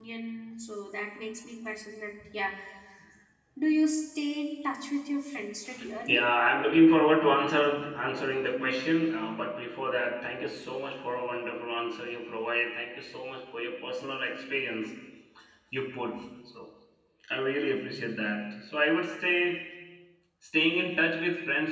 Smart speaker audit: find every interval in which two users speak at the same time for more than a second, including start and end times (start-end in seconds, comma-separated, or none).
none